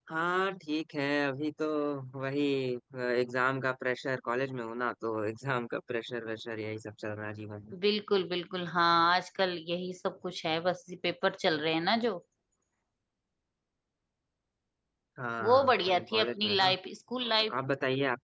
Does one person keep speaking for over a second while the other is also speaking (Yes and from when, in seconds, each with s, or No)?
Yes, from 15.4 s